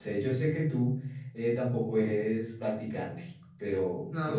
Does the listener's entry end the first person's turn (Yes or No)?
No